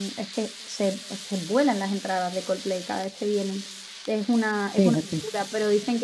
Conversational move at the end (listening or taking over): listening